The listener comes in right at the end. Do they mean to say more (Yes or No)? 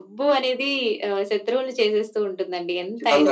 Yes